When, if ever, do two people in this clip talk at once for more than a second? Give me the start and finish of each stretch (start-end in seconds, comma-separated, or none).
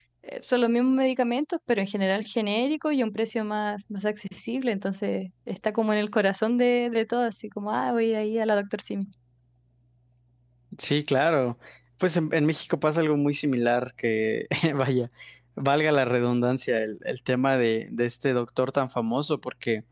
none